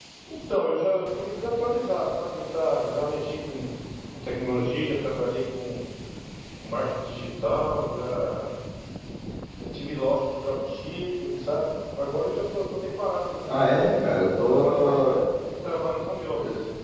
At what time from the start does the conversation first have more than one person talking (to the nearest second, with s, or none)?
13 s